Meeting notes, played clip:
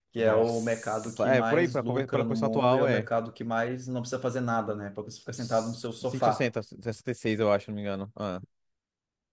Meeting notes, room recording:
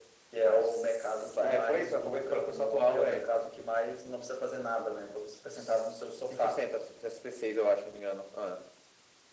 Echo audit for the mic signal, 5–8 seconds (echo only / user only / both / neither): echo only